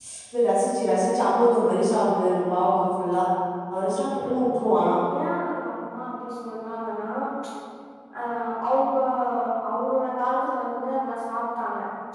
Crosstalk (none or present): none